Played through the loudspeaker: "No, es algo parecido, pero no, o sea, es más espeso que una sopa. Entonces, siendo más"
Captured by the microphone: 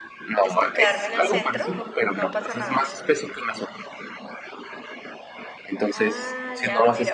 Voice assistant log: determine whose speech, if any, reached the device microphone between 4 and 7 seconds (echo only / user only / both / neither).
both